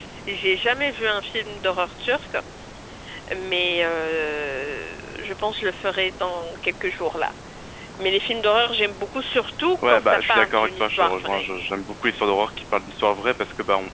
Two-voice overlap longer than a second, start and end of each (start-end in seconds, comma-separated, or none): 9.9-11.4